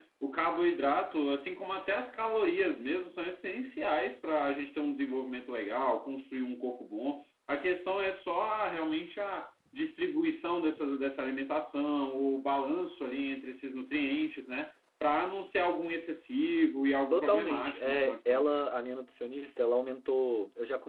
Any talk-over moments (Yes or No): Yes